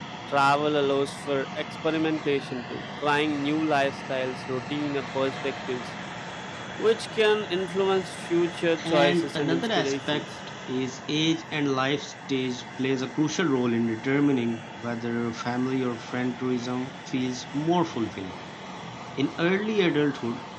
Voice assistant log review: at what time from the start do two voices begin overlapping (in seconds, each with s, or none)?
8.8 s